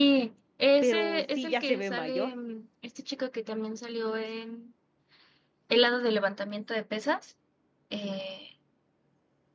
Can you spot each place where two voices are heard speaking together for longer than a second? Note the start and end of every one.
0.8-2.3

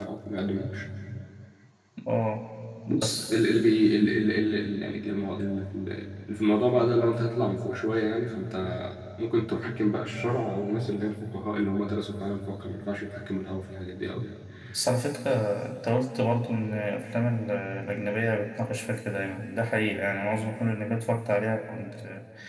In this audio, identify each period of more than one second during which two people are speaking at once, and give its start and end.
none

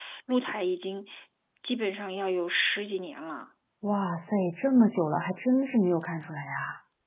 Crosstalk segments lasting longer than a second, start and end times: none

